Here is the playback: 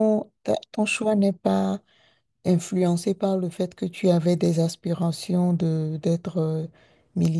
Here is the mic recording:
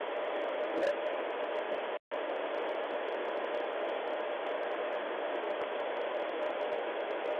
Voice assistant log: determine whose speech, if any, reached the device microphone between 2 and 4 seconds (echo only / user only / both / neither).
neither